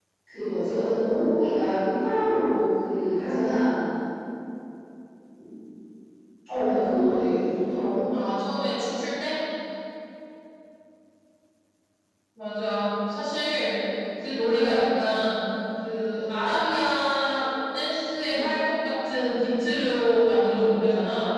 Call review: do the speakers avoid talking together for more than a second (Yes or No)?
Yes